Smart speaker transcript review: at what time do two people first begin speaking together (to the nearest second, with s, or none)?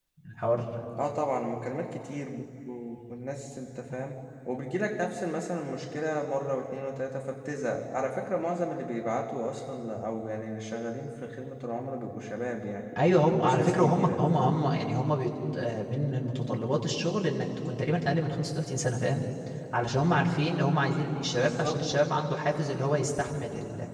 13 s